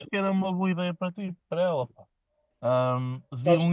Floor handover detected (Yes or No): No